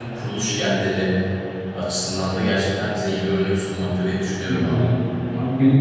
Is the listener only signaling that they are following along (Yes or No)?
No